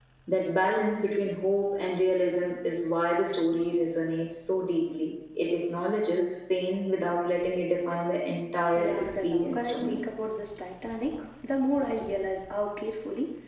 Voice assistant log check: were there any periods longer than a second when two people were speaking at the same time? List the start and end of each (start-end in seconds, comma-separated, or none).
8.8-10.0